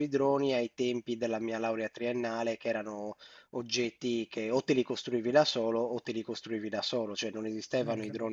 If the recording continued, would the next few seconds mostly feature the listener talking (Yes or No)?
No